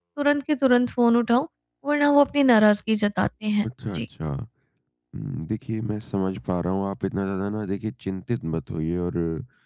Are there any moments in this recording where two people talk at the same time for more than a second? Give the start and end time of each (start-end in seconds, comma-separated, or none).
none